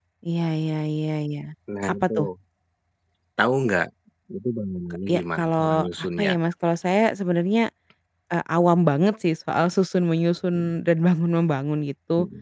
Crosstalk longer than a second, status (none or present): present